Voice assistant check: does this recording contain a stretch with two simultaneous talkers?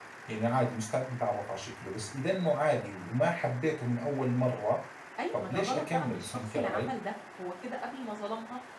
Yes, from 5.3 s

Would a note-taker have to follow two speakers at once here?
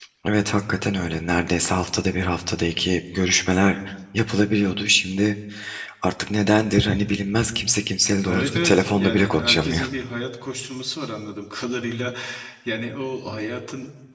Yes, from 8.3 s

